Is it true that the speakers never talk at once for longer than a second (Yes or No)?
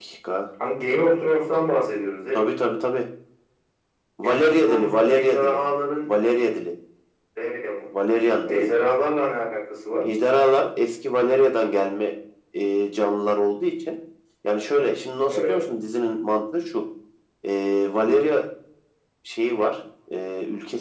No